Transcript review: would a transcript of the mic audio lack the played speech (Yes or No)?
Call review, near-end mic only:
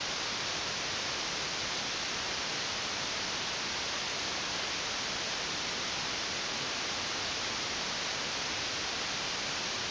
Yes